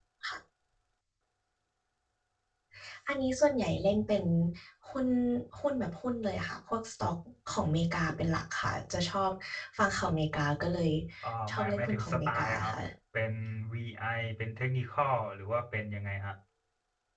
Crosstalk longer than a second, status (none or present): present